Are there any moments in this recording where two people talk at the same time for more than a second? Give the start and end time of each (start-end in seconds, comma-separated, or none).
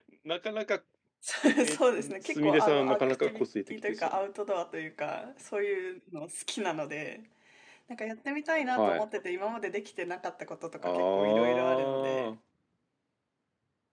1.6-4.2, 10.8-12.4